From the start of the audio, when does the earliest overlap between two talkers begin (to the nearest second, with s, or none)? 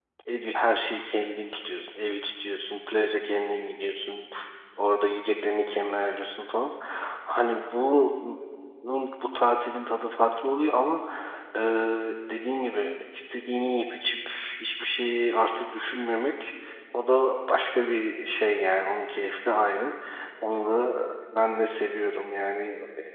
none